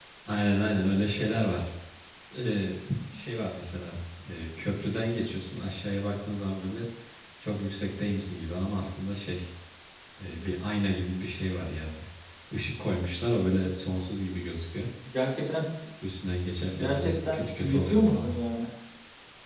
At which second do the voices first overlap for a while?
16.8 s

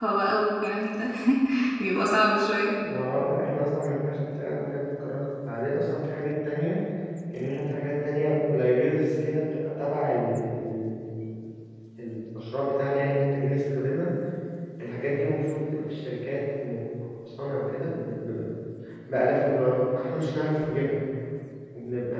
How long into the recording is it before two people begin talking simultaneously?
none

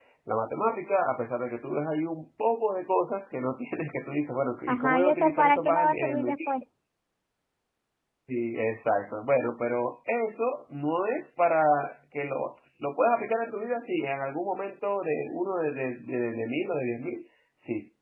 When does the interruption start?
4.7 s

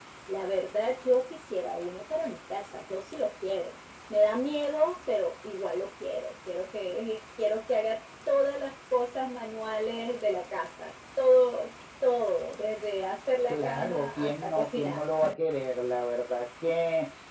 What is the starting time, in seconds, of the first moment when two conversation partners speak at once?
13.5 s

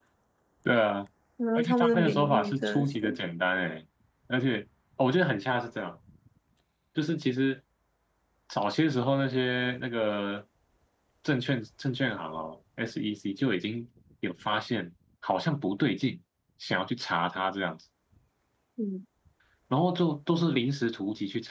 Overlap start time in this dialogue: 1.6 s

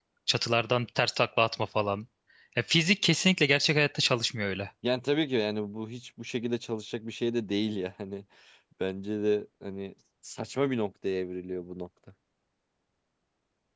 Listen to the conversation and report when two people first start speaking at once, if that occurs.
none

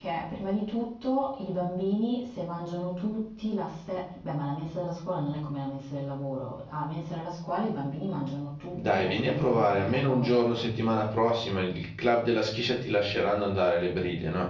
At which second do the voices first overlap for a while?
8.8 s

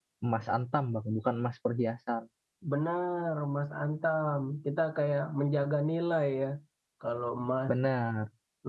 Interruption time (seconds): none

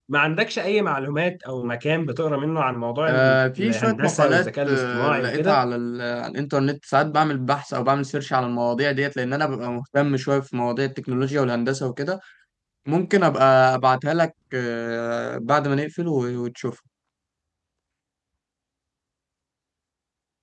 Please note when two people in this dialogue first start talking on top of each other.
3.1 s

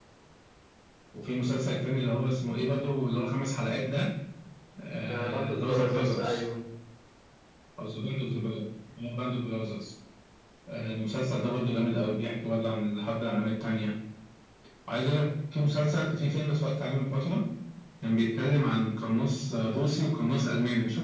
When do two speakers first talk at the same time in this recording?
5.0 s

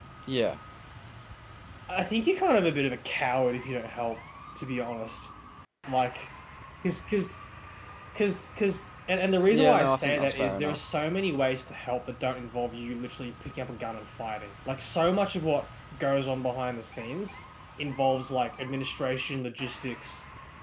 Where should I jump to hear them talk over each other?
9.5 s

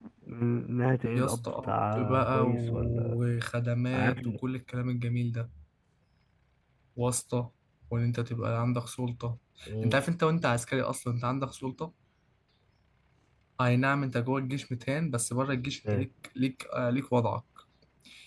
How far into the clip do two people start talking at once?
1.1 s

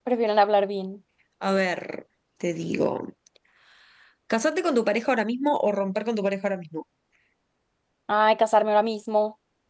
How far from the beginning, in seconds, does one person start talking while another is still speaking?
none

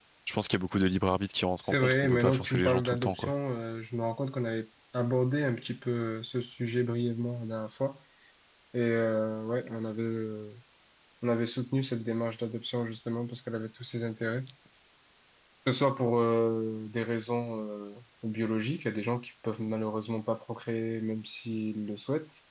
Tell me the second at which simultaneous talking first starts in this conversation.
1.6 s

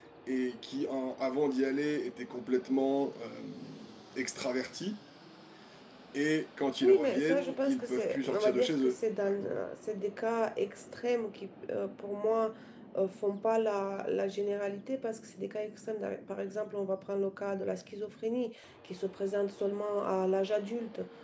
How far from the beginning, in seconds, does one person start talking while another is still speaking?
6.8 s

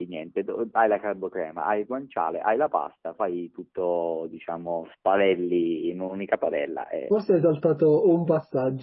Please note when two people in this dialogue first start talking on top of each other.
none

